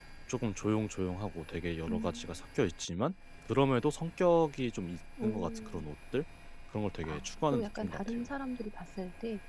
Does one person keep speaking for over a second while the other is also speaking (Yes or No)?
Yes